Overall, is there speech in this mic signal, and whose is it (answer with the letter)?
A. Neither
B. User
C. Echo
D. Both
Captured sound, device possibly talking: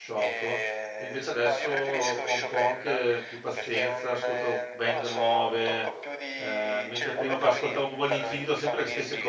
D